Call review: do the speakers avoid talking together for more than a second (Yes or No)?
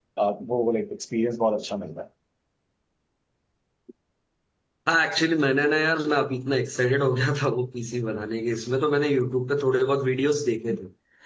Yes